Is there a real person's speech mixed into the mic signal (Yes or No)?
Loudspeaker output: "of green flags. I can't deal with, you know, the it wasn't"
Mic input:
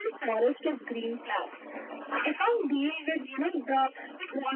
No